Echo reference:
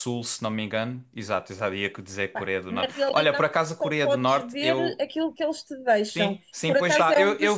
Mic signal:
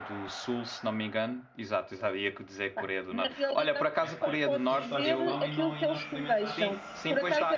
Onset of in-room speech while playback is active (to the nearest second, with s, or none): 4 s